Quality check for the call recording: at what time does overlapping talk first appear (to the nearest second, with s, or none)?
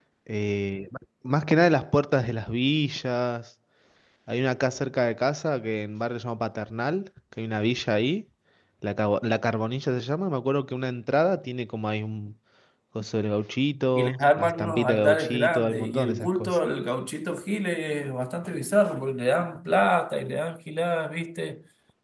14 s